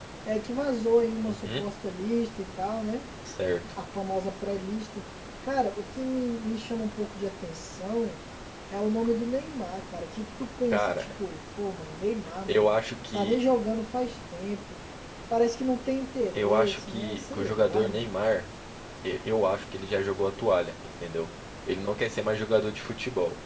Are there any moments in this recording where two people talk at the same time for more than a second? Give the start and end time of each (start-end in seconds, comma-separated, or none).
16.3-18.1